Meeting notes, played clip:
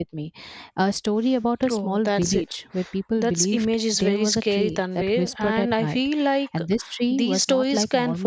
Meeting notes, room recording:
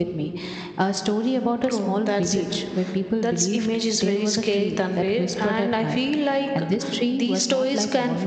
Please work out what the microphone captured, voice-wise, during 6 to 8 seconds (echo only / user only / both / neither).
echo only